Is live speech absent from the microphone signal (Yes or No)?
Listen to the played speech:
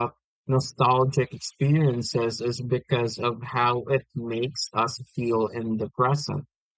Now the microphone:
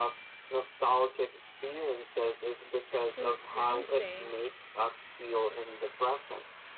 No